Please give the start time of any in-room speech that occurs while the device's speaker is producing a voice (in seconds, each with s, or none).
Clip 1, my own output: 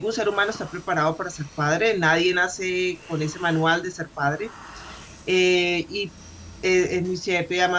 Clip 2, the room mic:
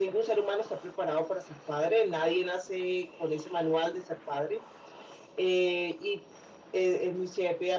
none